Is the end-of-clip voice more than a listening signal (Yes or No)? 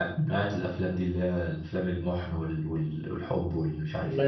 Yes